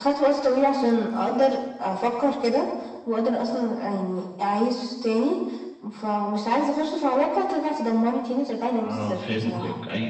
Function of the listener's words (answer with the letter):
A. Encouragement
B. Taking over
B